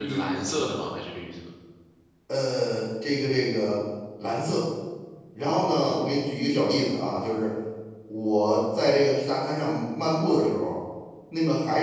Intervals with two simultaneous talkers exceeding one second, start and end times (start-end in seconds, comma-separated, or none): none